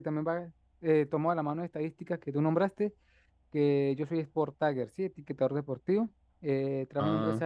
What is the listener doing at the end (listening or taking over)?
listening